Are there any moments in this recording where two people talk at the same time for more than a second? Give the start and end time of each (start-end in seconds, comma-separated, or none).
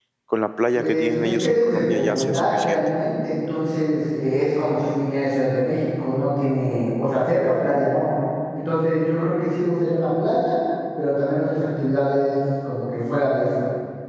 0.8-2.8